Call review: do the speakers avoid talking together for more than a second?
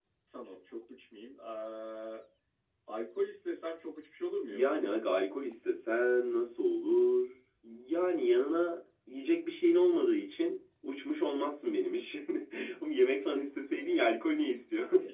Yes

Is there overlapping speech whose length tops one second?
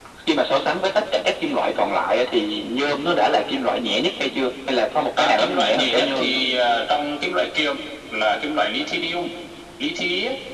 Yes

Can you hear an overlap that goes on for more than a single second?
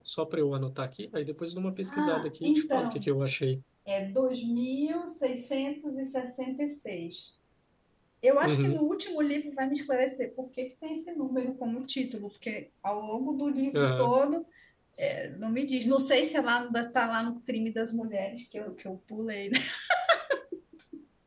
Yes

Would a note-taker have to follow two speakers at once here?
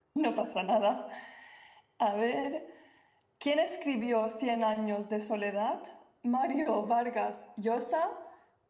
No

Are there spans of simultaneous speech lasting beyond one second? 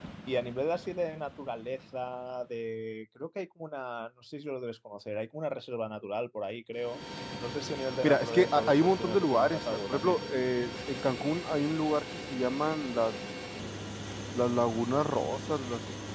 Yes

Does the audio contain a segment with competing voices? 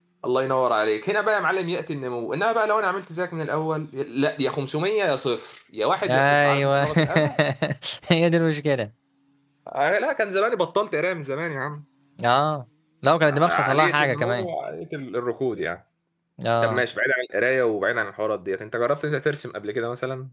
Yes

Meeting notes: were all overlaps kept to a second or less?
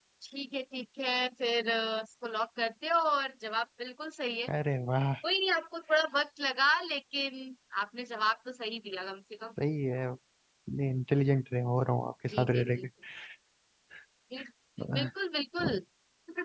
Yes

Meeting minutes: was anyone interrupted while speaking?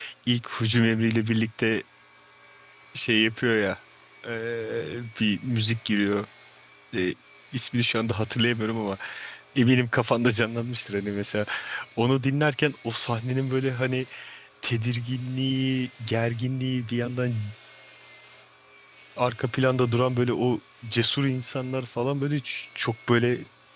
No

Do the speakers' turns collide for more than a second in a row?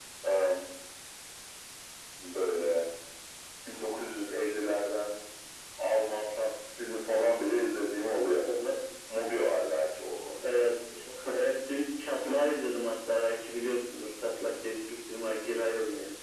No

